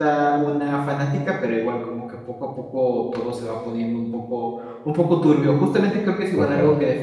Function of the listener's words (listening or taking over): listening